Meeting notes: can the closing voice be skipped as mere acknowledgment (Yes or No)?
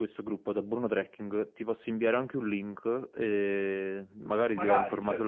Yes